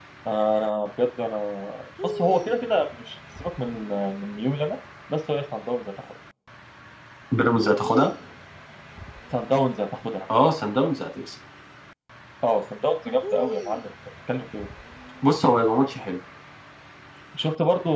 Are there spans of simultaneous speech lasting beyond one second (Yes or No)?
No